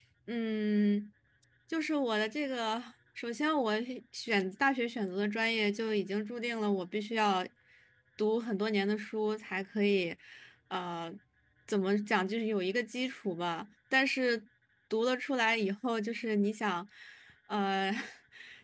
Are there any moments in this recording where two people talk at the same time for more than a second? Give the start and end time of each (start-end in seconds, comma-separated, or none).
none